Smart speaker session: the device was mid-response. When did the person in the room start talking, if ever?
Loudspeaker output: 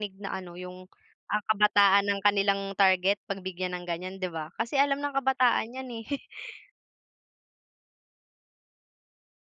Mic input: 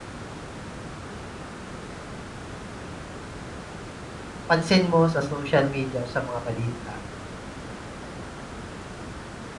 4.5 s

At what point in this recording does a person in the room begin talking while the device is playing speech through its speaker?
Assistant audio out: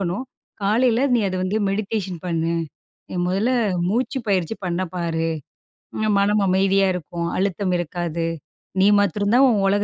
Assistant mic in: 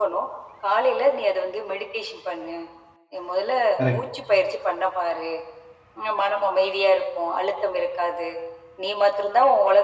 3.8 s

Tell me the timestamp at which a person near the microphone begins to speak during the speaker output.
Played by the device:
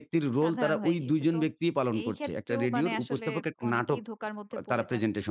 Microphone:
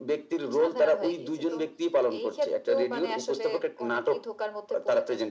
none

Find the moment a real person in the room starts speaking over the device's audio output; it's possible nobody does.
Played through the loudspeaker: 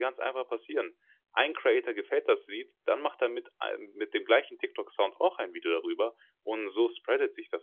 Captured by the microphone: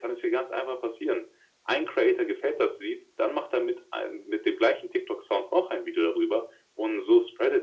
none

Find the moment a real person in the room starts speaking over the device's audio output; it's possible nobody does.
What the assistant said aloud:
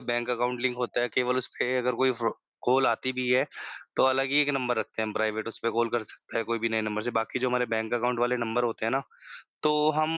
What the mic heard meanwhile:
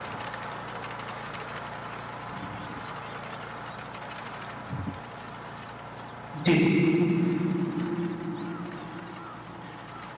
6.3 s

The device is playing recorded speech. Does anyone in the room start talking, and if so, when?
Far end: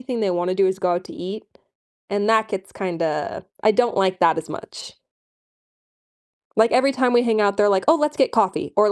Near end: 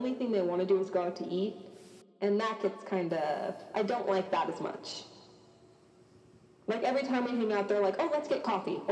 none

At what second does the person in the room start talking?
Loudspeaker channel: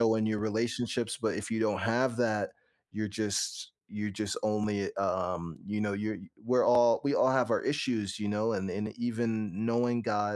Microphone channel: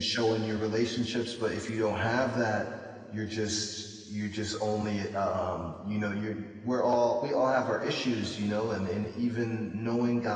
none

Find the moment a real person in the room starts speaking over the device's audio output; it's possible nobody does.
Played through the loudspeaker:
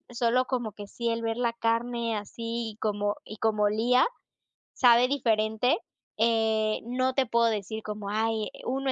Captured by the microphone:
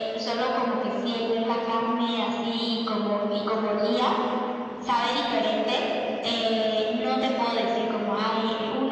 none

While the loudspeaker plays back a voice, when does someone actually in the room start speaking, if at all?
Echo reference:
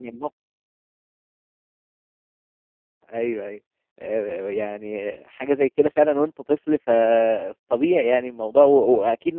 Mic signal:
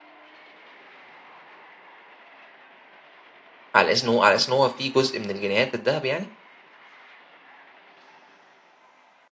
3.8 s

